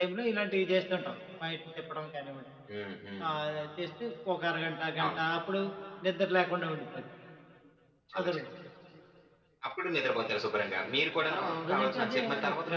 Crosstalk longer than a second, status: present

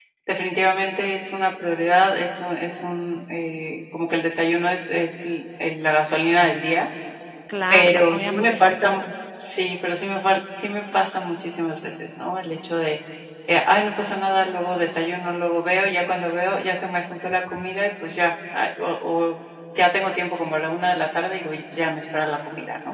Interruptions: present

